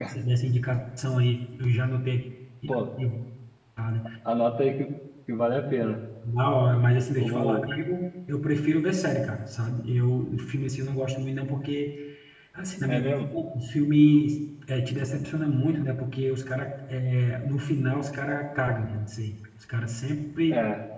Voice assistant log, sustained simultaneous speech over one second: none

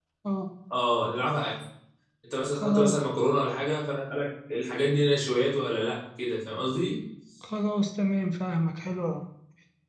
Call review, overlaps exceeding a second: none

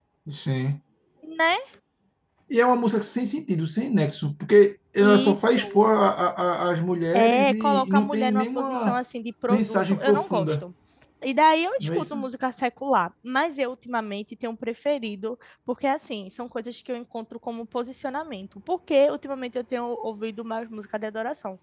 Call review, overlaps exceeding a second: present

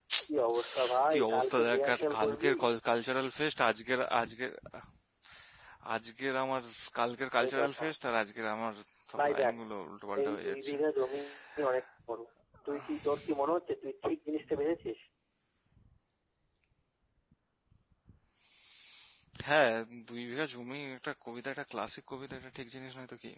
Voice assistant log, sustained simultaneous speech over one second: present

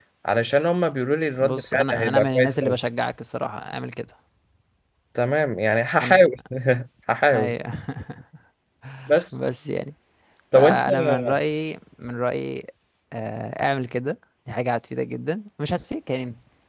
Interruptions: present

